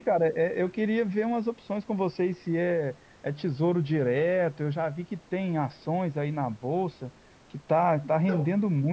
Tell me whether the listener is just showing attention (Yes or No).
Yes